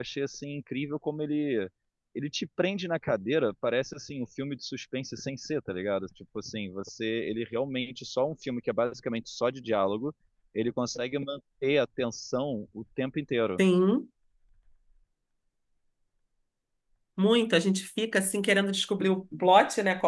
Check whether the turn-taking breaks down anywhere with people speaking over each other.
No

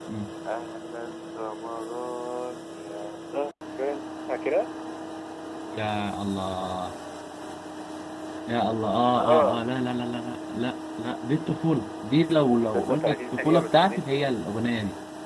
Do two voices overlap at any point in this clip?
Yes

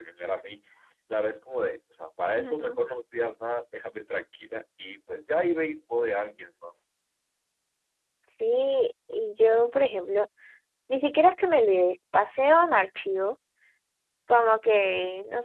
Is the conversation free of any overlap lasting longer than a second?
Yes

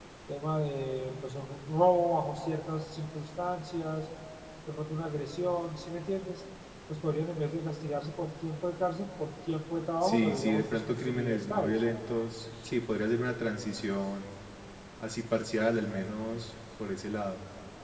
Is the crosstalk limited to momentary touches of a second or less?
No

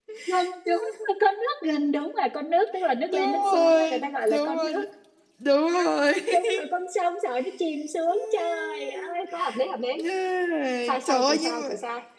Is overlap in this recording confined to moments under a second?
No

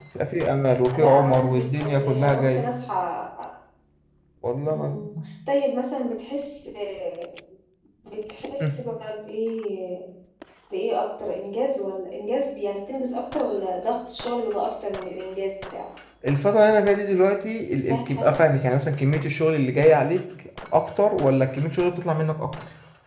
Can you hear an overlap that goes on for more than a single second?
Yes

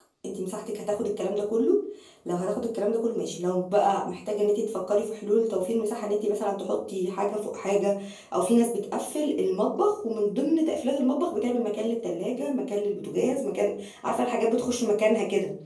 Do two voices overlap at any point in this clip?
No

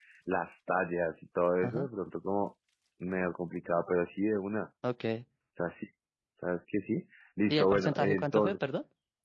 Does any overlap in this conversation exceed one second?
Yes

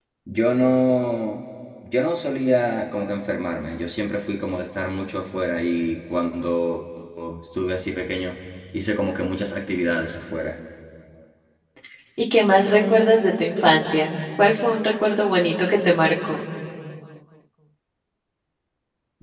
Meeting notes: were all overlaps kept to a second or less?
Yes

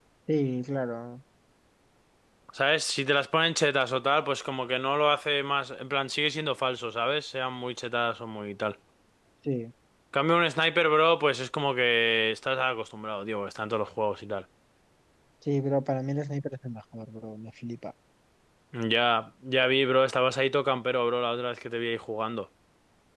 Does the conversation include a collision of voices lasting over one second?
No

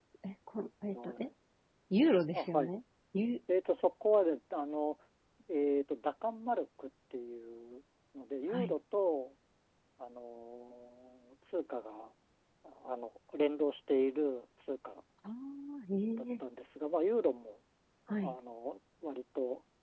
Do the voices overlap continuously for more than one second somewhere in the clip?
No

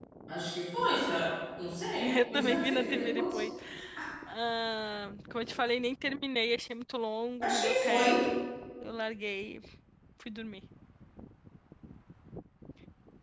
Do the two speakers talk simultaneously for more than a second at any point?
Yes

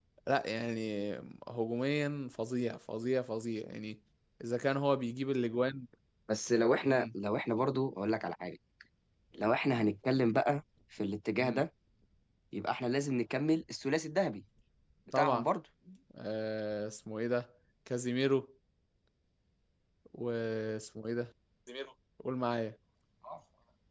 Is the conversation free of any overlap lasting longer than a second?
Yes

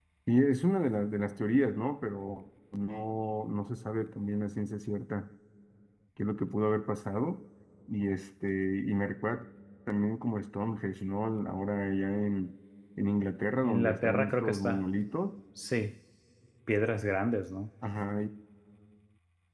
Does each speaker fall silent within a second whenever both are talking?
No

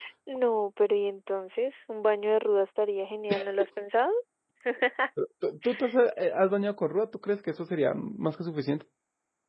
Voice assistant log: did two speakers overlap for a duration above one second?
No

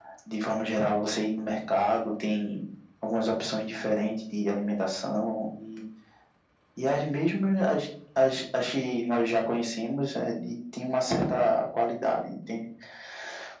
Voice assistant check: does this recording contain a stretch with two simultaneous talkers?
No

